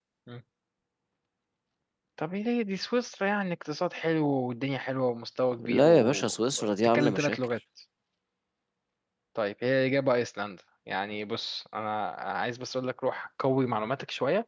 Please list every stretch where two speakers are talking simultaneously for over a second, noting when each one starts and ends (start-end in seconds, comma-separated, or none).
5.6-7.4